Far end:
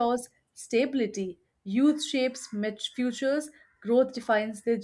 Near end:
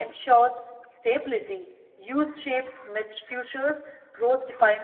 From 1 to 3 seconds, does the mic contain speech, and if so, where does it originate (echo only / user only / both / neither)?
echo only